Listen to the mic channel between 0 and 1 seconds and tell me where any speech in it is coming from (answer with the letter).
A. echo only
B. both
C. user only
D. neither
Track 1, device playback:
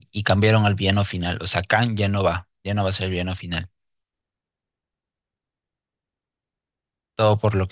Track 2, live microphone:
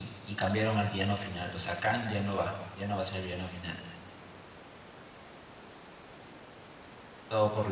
A